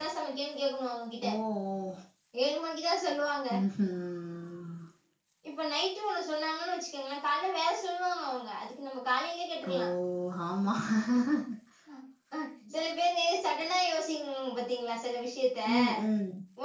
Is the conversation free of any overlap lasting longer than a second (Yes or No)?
Yes